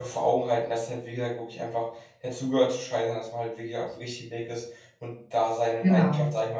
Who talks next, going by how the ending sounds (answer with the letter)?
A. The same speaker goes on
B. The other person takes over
A